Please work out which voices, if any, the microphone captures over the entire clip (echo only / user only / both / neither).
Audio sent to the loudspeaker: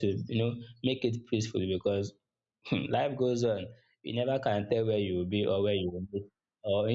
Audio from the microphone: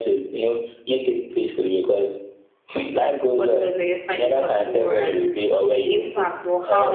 both